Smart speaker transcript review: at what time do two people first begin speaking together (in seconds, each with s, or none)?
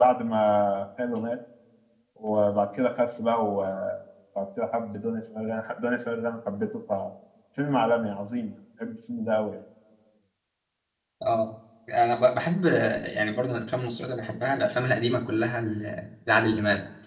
none